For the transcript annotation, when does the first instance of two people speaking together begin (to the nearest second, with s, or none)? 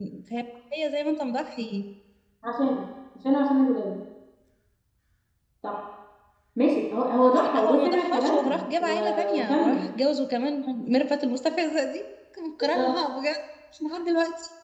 7 s